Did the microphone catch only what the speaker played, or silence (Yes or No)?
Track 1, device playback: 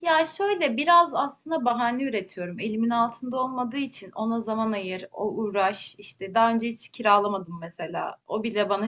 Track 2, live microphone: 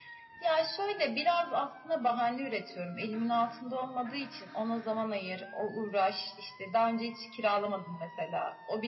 Yes